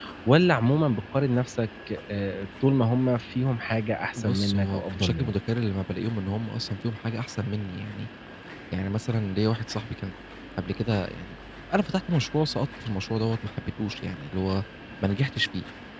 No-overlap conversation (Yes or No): No